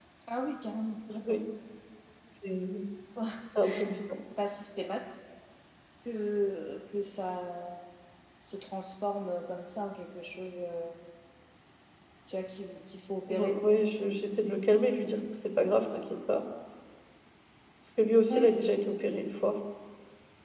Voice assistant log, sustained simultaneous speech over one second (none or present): none